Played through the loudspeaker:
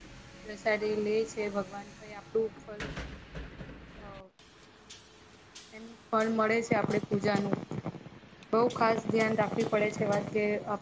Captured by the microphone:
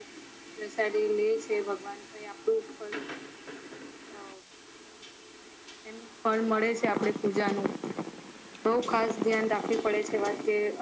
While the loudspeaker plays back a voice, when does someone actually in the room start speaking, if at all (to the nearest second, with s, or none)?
none